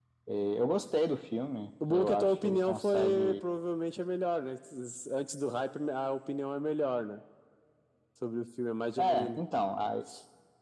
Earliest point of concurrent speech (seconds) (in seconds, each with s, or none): 1.9 s